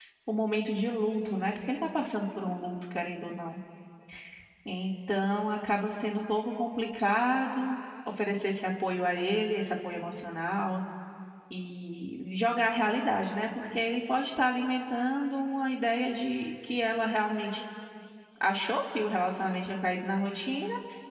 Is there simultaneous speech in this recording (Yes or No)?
No